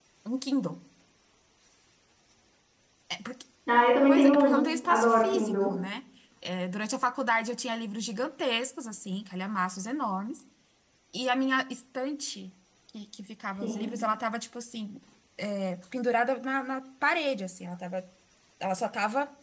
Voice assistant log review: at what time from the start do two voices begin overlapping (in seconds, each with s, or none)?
4.1 s